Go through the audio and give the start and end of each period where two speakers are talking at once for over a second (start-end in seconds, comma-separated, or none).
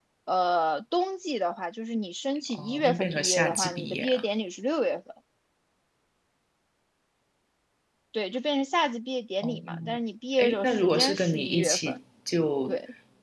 2.5-4.2, 10.4-12.0